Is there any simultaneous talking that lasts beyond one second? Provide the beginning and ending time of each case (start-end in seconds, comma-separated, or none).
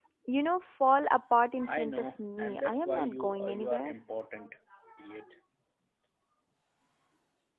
1.6-3.9